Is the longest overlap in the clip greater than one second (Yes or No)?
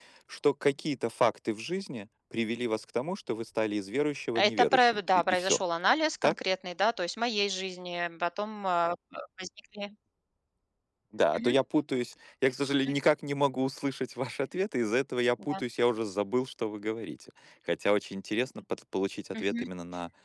Yes